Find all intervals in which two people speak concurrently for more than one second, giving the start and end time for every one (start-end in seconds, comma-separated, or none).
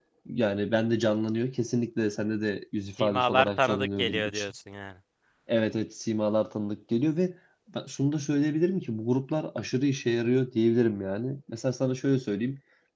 3.0-4.3